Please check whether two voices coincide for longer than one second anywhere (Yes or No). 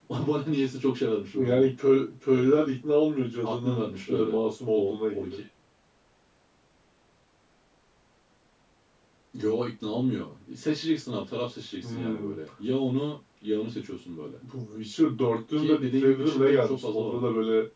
Yes